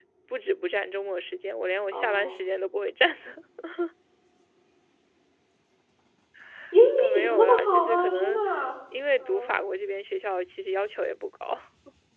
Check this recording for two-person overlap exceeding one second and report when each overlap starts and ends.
7.0-8.4

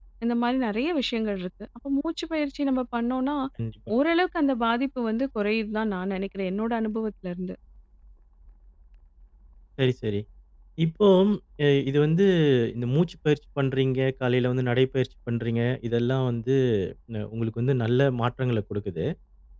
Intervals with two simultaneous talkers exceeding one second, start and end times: none

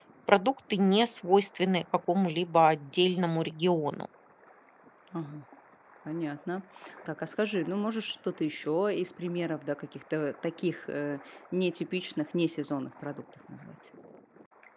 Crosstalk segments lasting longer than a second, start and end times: none

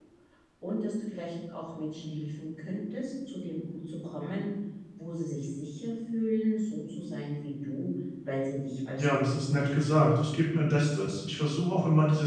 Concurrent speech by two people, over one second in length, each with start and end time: 9.0-10.5

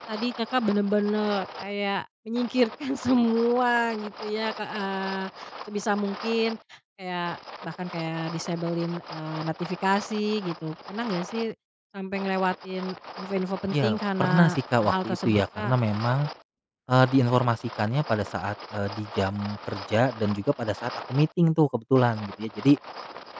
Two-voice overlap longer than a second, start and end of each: 13.8-15.8

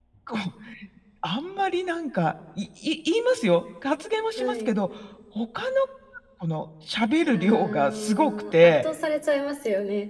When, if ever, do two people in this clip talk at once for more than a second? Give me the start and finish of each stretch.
7.3-8.8

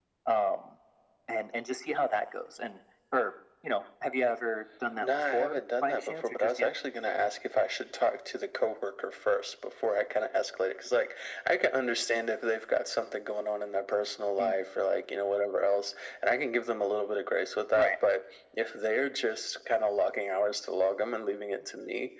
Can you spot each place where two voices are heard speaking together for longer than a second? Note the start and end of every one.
5.0-6.7

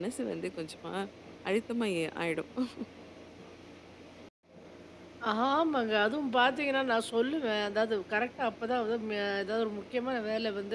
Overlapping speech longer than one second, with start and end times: none

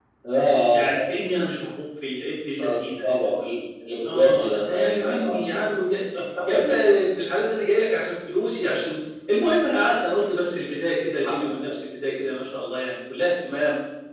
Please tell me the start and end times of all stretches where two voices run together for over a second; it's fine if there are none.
4.0-5.6

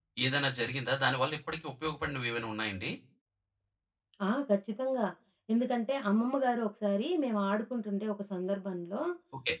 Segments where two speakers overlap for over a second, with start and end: none

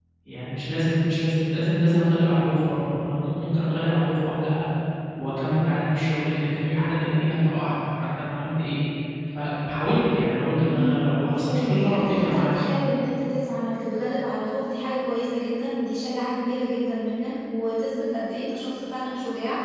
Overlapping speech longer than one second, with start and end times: 10.6-12.6

